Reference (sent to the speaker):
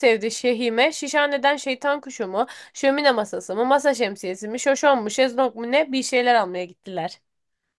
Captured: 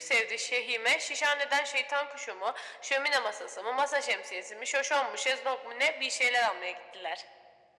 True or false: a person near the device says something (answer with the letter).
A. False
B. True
A